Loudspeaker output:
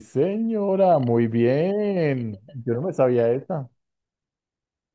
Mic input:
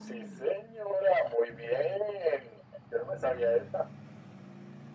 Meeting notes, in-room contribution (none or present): none